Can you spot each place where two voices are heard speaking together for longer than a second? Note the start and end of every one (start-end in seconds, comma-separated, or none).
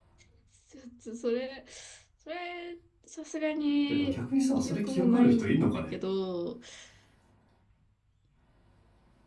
4.7-5.9